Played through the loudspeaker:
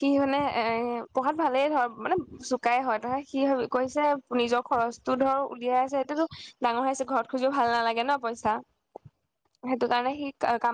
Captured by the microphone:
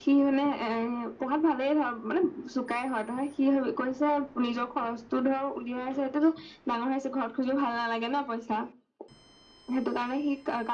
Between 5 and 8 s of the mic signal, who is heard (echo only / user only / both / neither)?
echo only